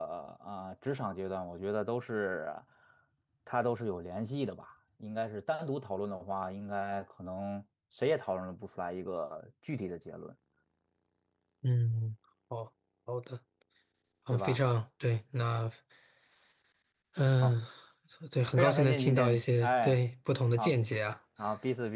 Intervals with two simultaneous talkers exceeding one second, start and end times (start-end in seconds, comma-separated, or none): 18.6-20.0